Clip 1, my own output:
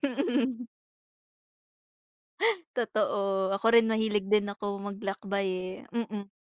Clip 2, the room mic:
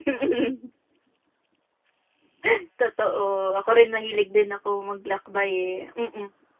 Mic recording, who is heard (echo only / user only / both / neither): echo only